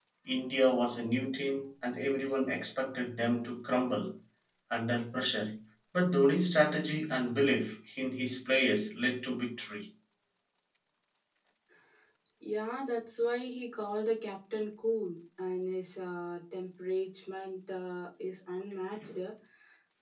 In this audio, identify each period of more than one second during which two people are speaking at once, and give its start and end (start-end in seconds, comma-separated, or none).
none